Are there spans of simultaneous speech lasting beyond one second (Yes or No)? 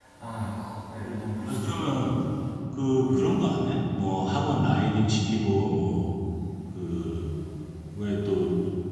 No